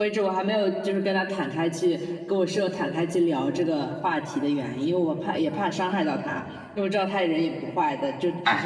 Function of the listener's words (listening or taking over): taking over